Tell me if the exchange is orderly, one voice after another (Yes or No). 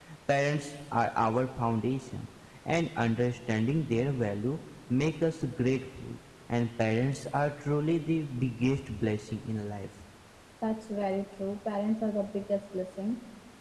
Yes